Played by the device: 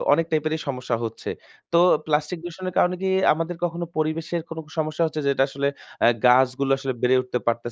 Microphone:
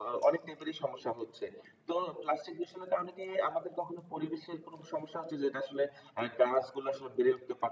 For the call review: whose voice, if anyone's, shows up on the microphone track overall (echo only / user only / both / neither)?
echo only